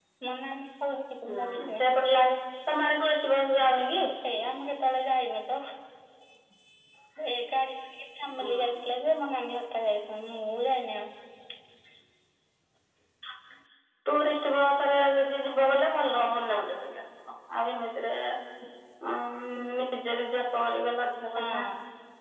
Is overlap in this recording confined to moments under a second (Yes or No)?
Yes